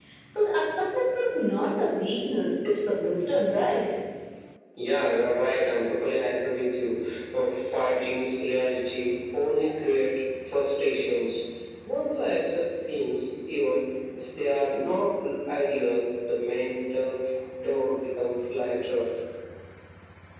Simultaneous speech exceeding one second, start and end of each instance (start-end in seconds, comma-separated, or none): none